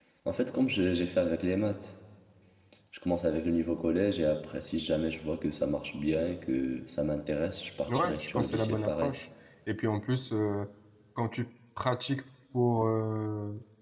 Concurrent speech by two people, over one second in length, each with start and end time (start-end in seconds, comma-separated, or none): 7.9-9.1